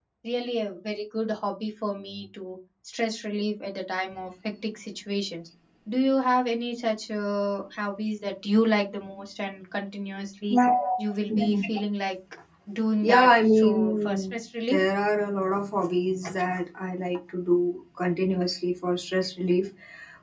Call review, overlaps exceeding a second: present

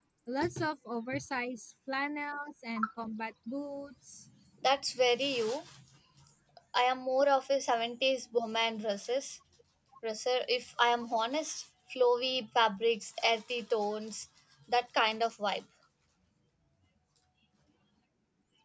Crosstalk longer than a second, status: none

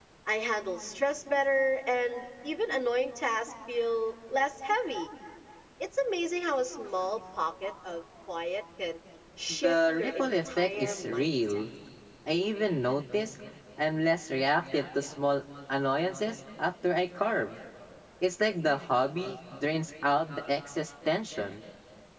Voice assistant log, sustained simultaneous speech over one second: present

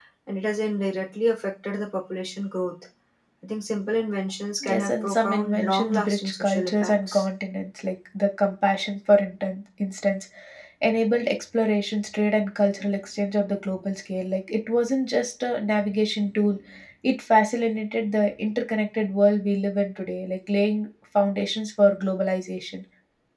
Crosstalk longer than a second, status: present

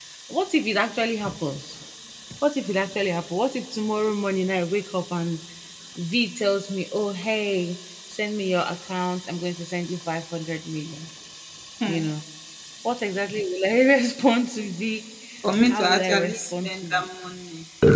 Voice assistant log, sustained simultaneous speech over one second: present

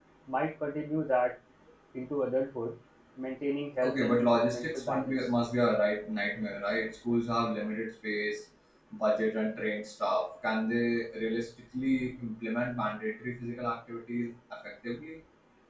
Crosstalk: present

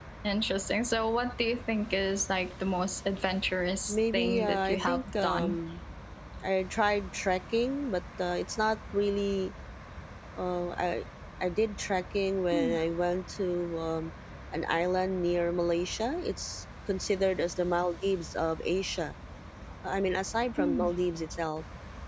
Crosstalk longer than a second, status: present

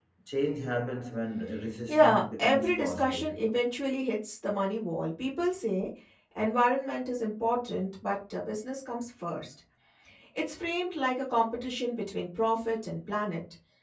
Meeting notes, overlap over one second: present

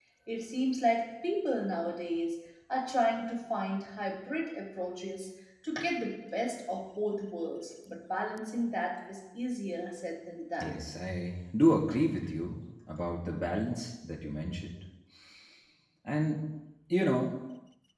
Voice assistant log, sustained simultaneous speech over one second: none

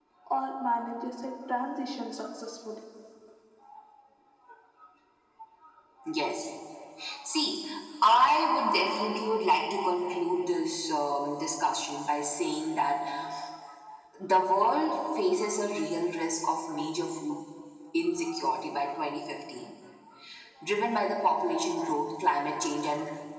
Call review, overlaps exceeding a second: none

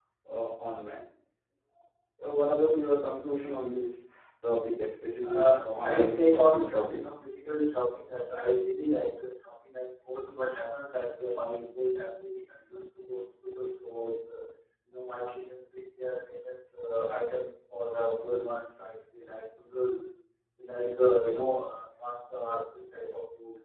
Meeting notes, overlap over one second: present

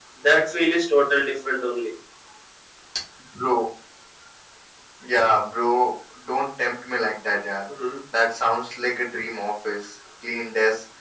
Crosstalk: none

